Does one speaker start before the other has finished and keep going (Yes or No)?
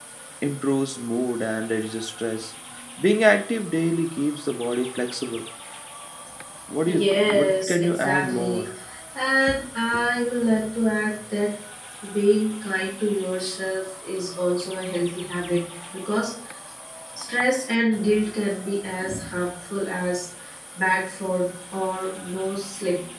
Yes